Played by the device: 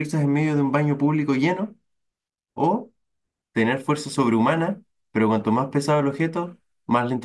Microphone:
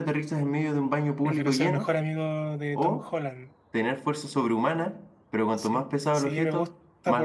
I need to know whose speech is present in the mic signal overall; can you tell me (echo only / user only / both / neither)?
both